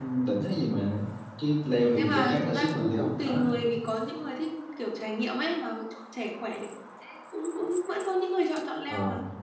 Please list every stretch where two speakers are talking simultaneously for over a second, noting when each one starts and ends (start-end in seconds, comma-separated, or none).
1.8-3.5